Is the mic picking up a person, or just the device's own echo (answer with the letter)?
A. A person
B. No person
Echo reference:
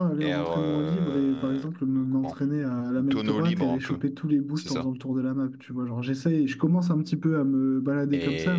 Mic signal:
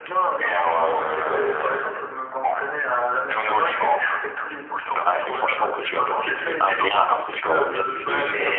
A